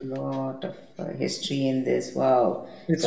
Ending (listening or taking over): listening